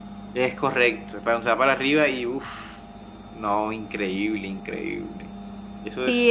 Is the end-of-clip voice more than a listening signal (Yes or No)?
Yes